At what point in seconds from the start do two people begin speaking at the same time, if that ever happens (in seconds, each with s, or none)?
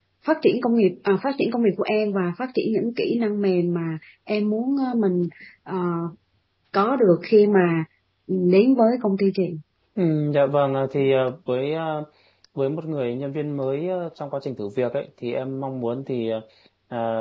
none